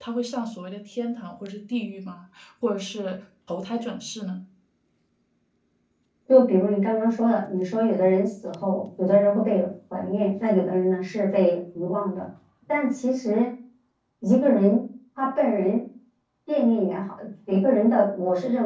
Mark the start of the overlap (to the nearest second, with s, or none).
none